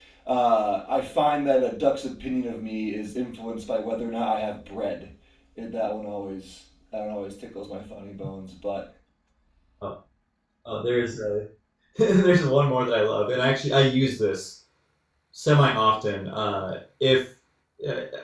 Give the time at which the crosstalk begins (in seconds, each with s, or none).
none